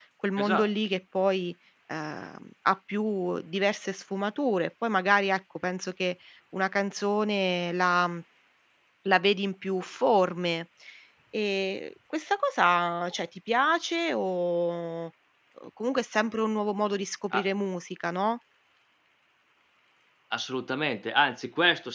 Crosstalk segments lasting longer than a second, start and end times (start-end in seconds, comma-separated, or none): none